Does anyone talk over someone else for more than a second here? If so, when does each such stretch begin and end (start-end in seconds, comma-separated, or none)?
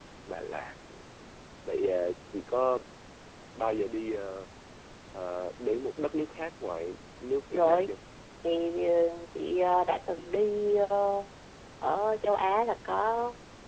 none